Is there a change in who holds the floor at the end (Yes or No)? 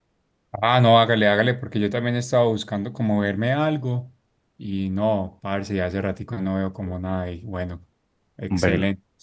No